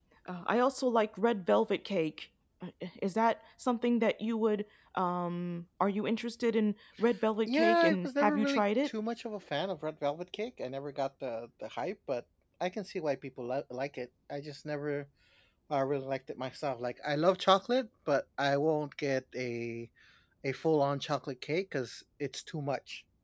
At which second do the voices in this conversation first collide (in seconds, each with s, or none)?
7.5 s